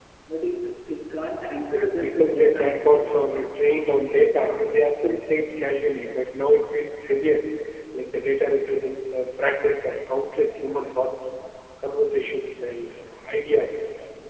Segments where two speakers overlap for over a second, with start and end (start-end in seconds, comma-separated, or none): 1.7-3.2